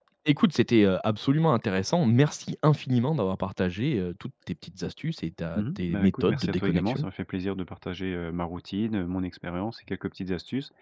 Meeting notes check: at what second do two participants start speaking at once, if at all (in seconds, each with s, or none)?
5.5 s